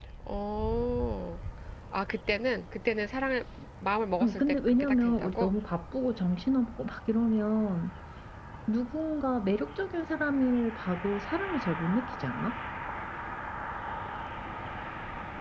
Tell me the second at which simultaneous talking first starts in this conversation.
4.2 s

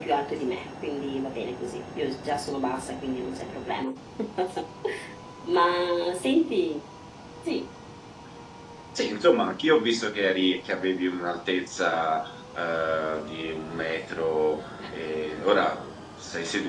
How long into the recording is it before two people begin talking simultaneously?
none

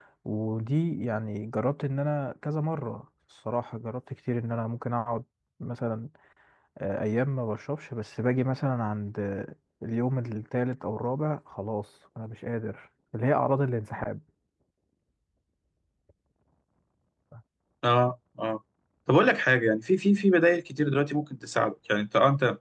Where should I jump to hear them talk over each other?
none

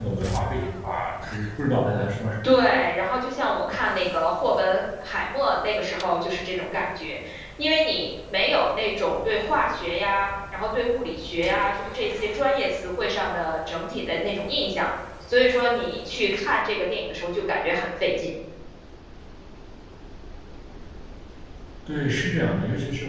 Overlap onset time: none

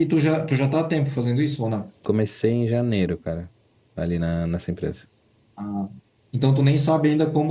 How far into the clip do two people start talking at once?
none

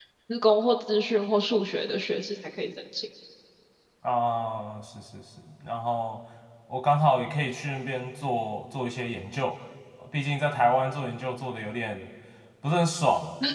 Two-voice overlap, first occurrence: none

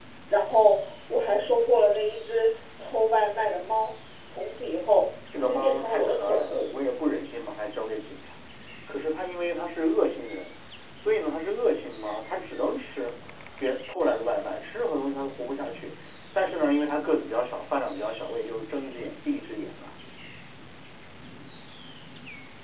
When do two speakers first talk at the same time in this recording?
5.3 s

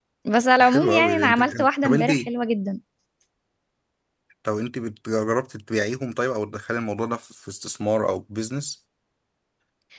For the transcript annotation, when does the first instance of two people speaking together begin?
0.6 s

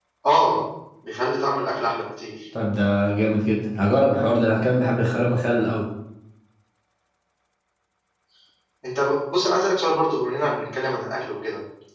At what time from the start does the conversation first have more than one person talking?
none

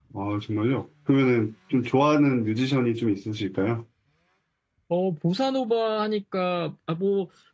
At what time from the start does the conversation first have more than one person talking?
none

